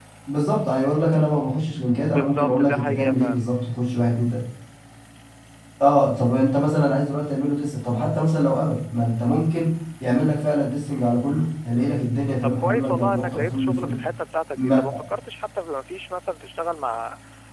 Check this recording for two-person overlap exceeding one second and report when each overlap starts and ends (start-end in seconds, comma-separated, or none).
2.0-3.4, 12.4-14.0